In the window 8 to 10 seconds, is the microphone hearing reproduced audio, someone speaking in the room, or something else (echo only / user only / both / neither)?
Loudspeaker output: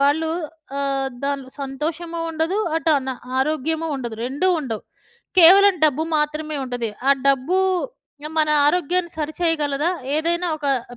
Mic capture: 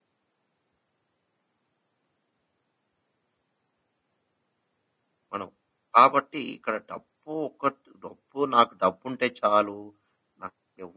user only